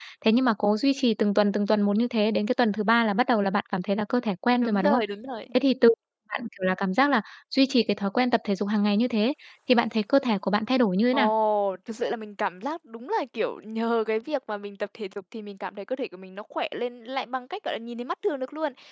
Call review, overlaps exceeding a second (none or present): none